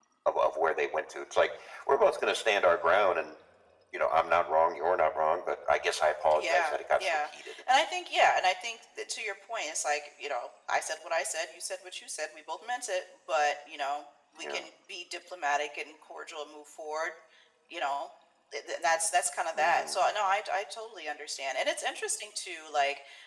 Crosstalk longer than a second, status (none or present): present